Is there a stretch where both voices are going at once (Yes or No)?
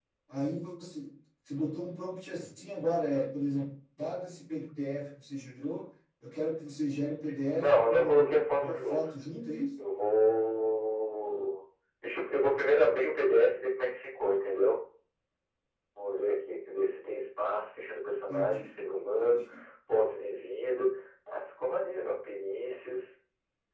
Yes